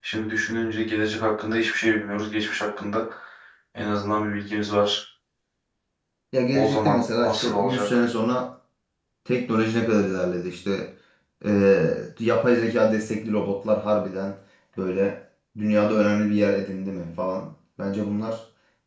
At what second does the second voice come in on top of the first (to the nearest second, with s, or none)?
7 s